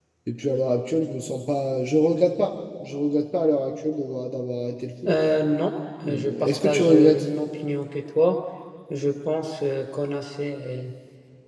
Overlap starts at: 6.0 s

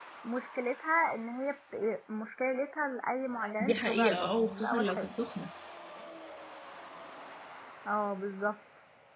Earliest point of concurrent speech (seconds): 3.6 s

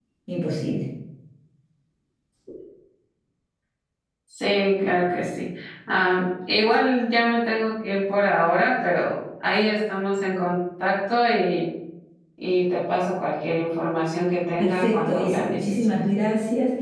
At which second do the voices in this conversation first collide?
14.6 s

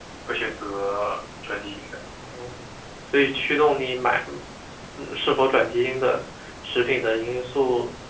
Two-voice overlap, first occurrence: none

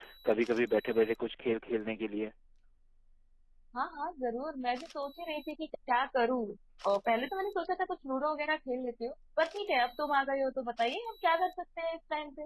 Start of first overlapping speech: none

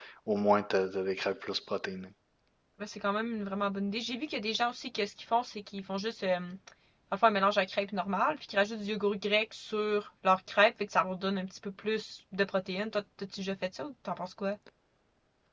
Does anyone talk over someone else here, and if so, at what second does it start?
none

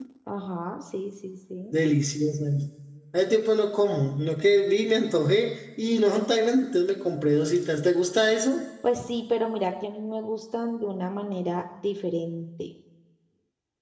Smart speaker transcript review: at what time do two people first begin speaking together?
none

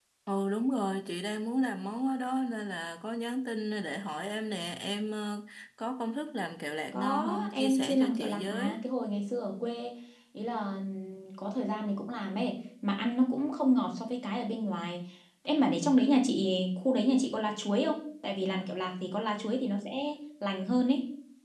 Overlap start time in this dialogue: 6.9 s

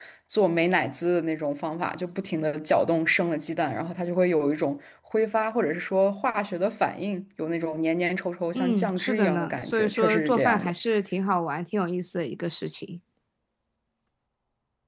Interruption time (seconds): 8.5 s

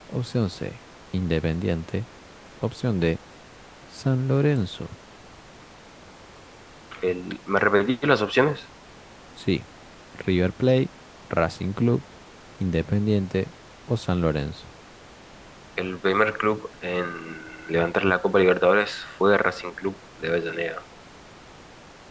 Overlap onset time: none

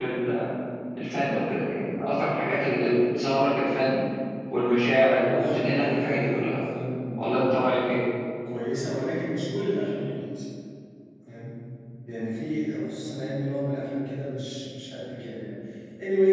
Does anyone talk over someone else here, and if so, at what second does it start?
5.1 s

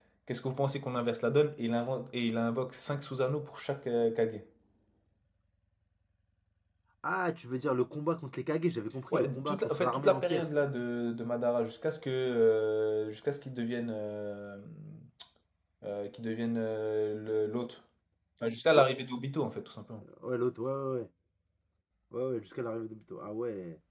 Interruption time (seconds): 9.1 s

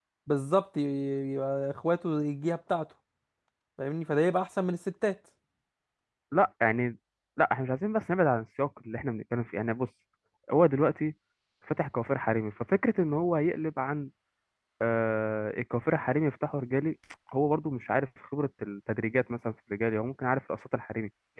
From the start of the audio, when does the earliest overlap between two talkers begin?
none

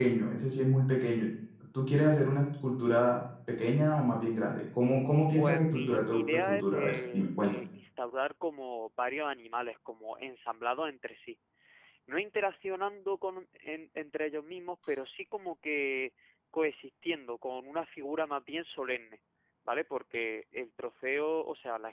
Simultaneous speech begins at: 5.3 s

